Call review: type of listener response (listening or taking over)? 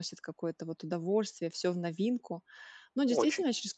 listening